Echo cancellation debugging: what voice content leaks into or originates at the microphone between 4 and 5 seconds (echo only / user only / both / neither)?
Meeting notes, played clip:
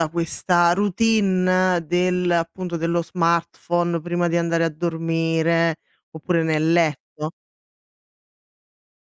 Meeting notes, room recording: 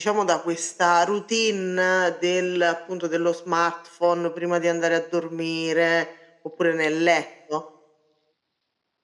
echo only